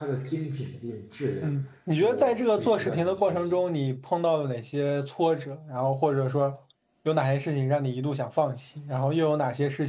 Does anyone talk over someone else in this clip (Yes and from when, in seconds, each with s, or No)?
Yes, from 1.9 s